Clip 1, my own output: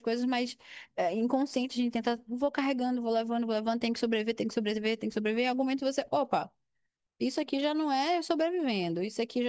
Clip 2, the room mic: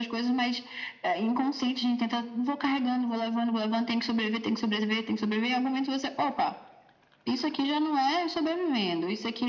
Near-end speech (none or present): none